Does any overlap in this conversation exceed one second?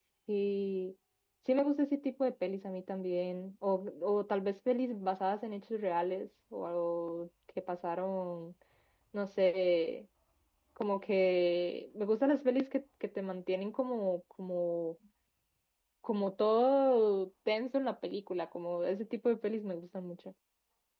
No

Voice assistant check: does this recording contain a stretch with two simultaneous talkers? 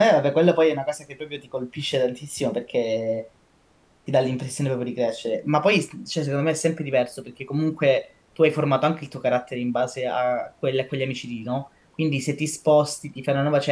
No

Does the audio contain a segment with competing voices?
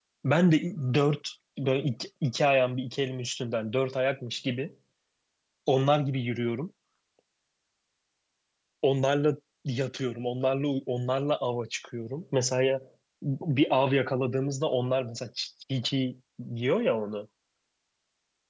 No

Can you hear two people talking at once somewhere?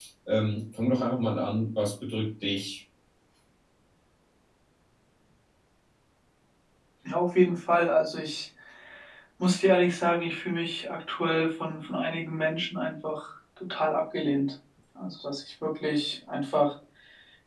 No

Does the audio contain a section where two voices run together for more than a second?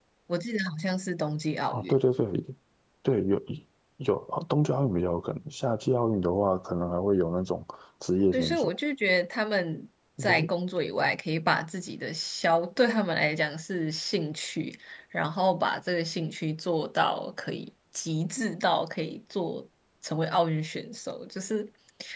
No

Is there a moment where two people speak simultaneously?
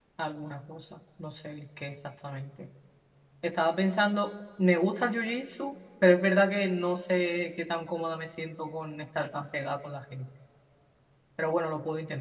No

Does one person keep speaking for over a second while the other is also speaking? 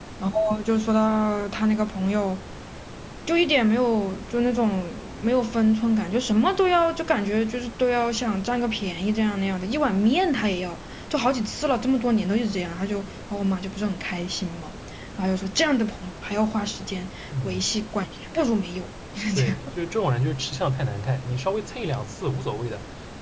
No

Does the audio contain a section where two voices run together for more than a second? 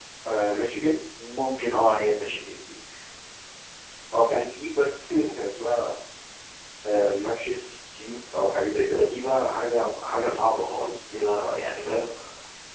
No

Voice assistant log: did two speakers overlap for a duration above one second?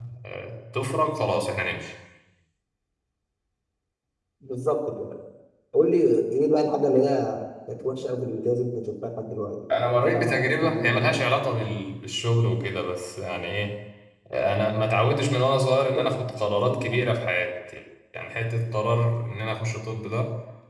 Yes, from 10.0 s

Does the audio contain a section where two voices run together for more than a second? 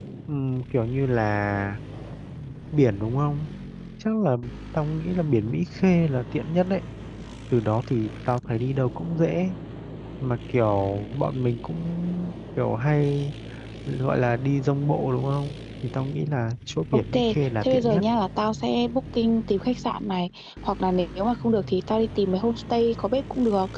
No

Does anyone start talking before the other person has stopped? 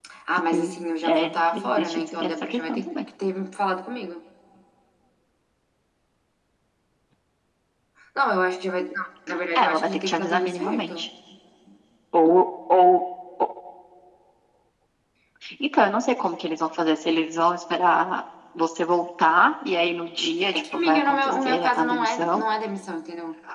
Yes, from 0.5 s

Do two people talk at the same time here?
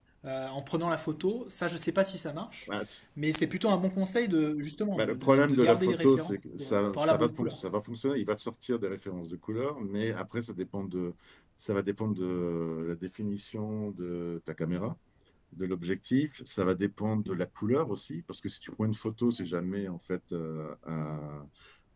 Yes, from 4.9 s

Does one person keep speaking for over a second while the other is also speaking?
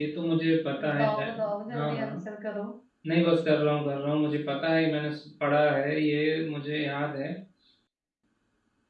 Yes, from 0.9 s

